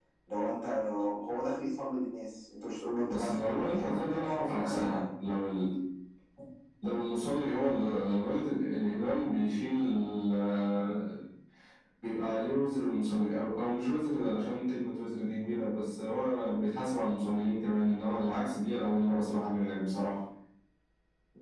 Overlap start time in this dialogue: 3 s

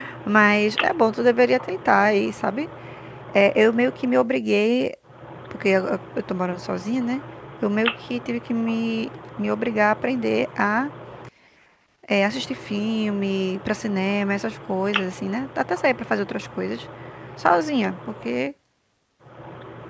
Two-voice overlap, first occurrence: none

